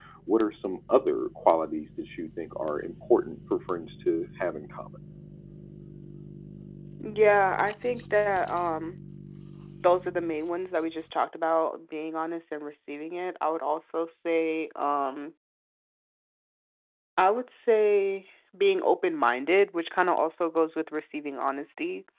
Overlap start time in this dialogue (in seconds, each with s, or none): none